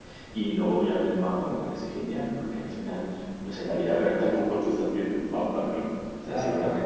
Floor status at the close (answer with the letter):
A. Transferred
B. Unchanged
B